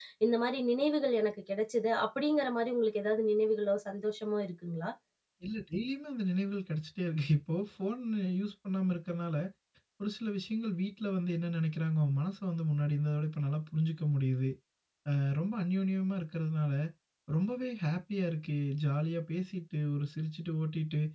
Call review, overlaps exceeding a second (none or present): none